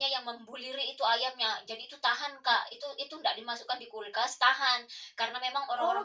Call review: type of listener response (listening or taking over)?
listening